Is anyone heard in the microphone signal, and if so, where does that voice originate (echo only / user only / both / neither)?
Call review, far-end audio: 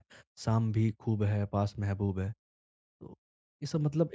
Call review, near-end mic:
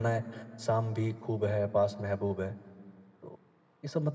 echo only